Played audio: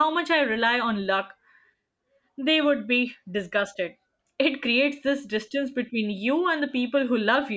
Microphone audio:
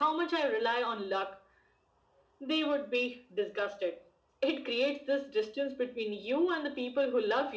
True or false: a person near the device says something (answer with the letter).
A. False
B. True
A